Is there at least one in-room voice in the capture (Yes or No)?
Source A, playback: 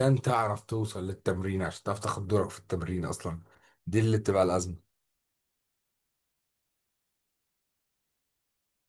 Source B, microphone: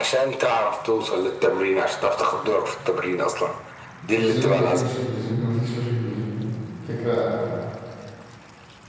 Yes